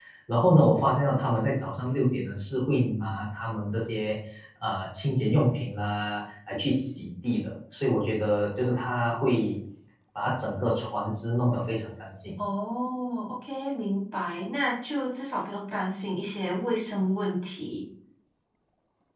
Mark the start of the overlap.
none

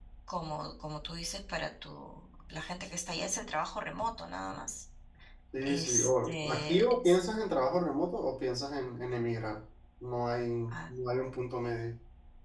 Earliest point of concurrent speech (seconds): 5.6 s

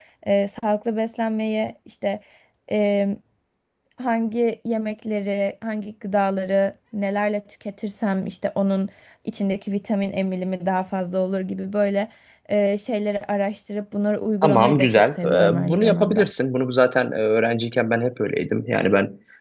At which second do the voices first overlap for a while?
14.4 s

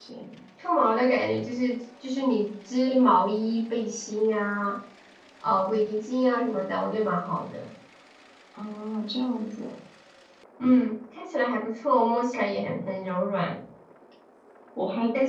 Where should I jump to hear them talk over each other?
none

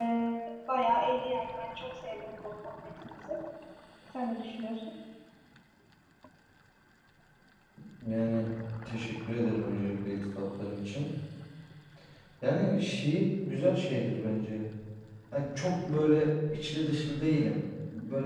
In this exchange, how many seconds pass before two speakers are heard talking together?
none

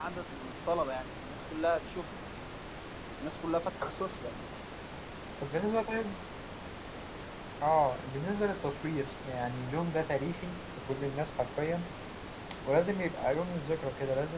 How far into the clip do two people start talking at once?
none

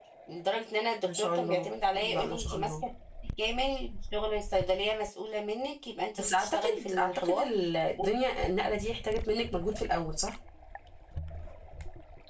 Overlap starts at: 1.1 s

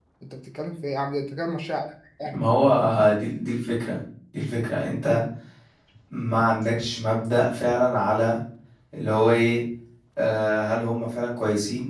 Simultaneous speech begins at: none

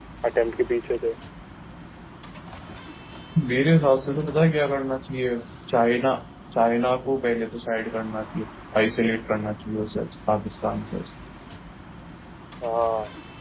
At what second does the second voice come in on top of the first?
none

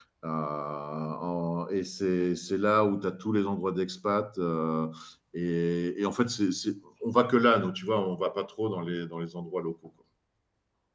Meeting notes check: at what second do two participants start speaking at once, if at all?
none

